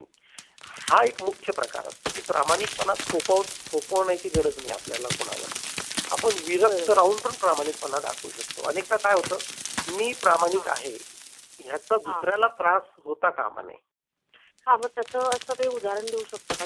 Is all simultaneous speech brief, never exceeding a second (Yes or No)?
Yes